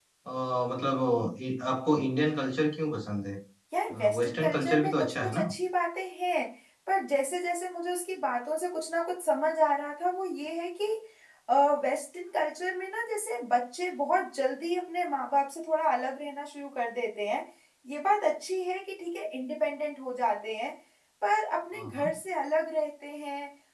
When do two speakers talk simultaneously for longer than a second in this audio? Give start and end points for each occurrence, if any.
4.2-5.5

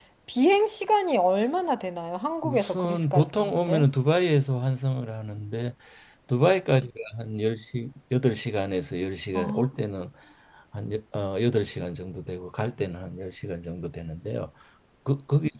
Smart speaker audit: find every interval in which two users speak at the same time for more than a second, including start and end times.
2.4-3.9

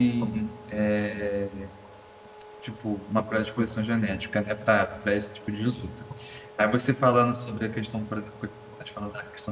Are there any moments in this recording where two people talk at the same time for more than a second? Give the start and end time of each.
none

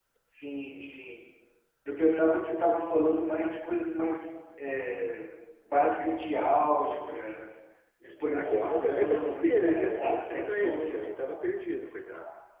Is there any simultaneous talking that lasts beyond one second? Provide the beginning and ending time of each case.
8.0-11.1

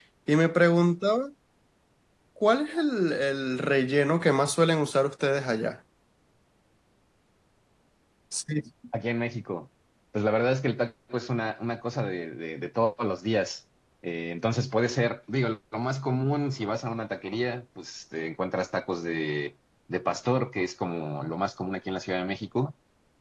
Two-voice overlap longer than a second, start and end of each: none

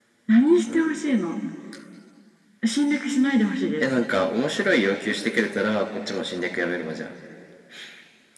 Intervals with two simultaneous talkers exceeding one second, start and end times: none

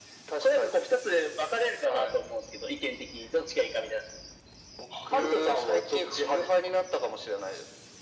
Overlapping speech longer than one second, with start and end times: 5.0-6.5

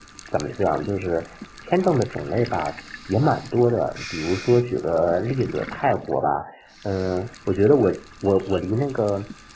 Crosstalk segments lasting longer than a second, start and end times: none

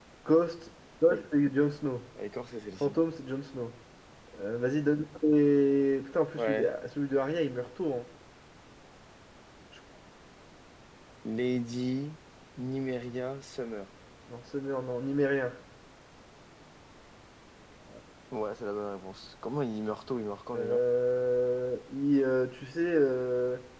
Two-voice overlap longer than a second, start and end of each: none

